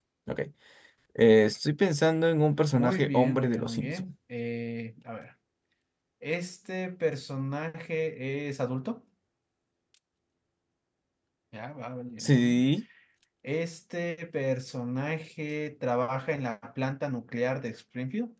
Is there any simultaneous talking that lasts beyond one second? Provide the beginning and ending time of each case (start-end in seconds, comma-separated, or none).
2.7-4.0